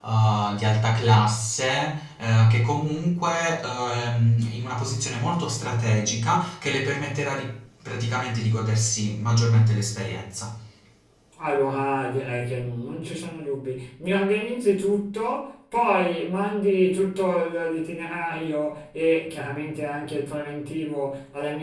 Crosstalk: none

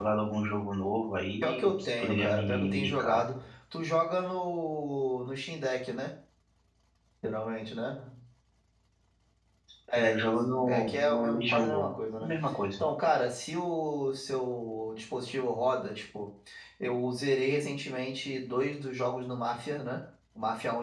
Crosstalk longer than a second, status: present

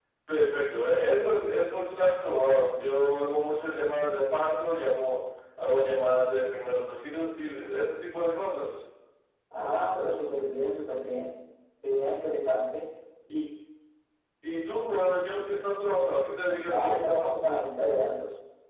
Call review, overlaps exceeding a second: none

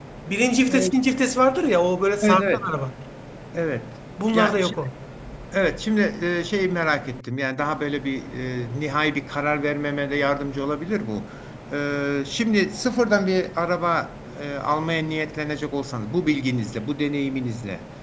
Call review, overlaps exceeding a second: none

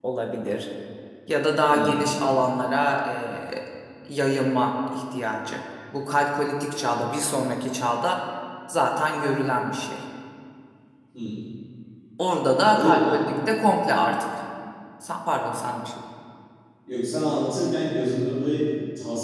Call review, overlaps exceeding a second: none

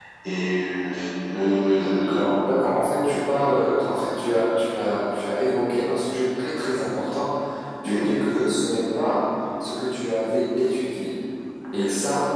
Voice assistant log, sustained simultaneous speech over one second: none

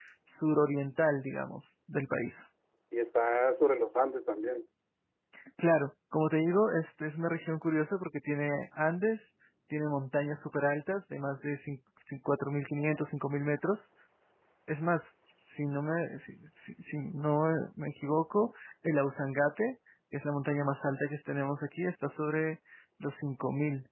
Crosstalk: none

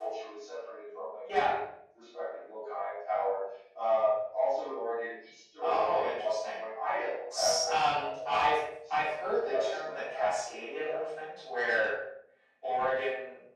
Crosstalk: present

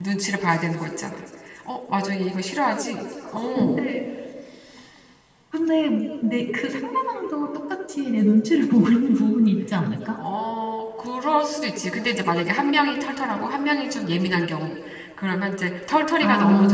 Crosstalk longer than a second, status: none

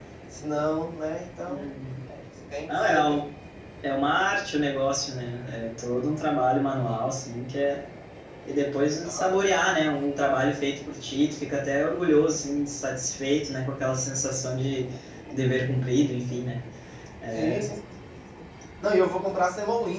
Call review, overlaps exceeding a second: none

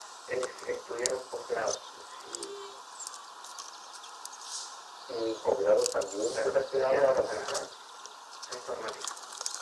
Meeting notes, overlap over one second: present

